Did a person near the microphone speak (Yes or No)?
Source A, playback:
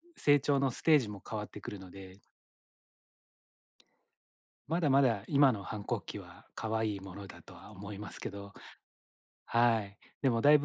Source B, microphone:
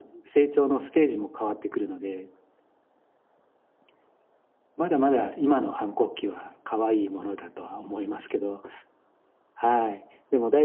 No